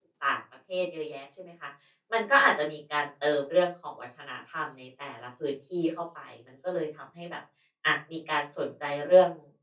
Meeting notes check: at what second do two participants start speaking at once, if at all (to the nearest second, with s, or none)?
none